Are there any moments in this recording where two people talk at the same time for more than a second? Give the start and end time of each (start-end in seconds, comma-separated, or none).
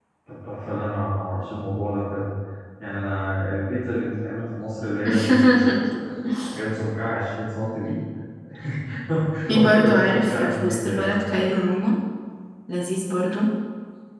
9.5-11.1